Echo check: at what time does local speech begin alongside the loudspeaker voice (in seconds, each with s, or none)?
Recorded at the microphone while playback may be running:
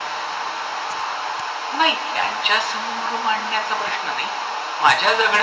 none